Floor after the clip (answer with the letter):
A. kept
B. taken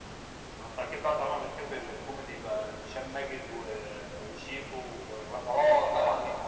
B